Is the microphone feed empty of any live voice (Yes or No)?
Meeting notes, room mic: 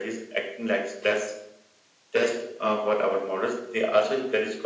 Yes